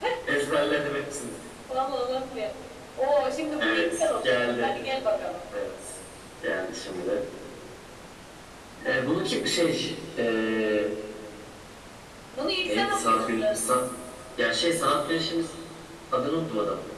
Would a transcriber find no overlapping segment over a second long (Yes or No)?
No